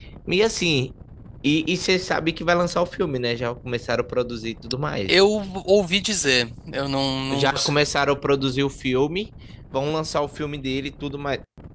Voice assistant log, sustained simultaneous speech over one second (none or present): none